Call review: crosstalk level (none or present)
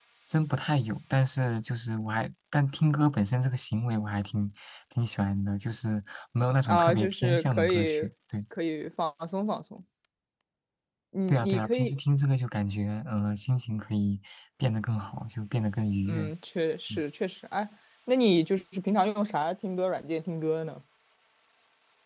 present